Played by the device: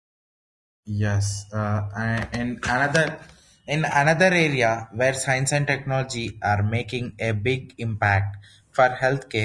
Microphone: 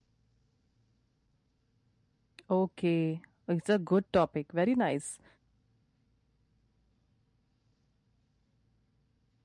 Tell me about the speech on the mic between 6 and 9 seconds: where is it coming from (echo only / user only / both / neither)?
neither